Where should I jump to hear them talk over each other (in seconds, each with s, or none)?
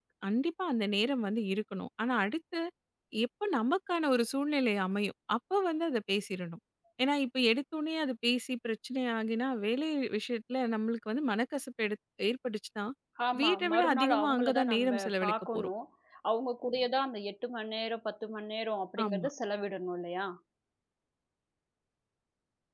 13.4 s